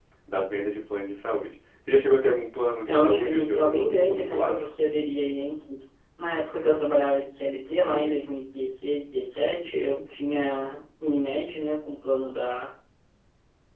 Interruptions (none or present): present